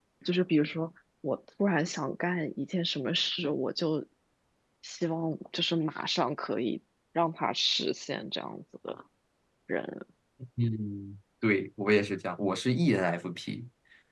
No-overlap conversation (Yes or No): Yes